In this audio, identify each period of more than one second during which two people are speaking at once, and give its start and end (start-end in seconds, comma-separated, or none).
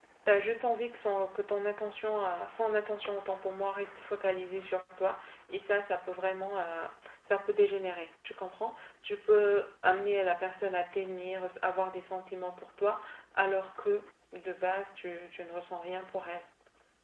none